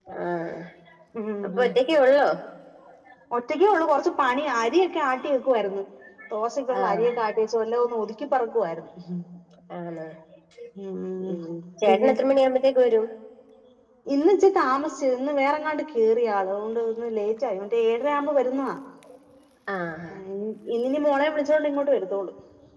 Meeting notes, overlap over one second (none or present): none